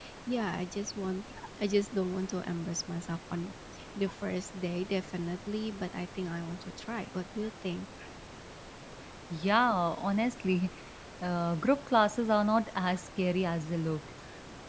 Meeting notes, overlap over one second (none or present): none